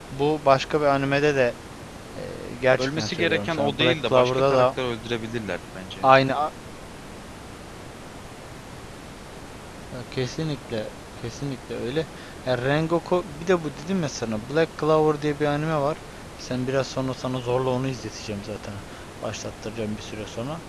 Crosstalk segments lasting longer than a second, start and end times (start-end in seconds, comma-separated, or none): 2.8-4.7